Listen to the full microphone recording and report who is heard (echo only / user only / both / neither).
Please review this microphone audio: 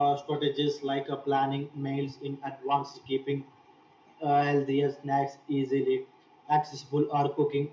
echo only